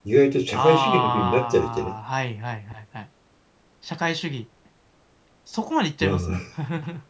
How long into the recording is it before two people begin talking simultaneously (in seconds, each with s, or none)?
0.5 s